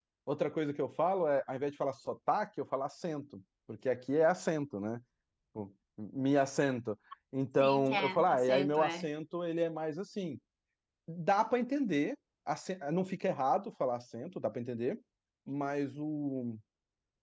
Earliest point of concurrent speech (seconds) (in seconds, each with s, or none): 7.6 s